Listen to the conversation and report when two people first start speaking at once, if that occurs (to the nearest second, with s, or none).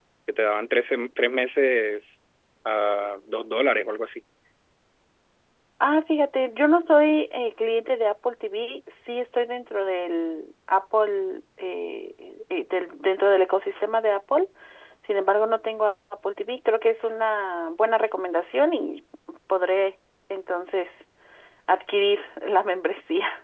none